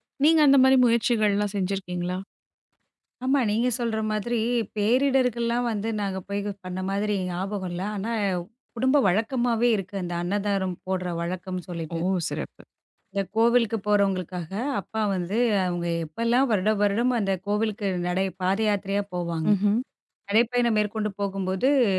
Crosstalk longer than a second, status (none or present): none